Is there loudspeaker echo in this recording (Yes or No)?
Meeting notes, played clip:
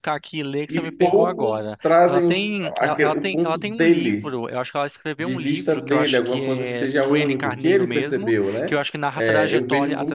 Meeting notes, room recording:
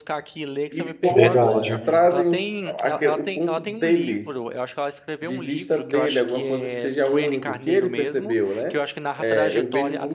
Yes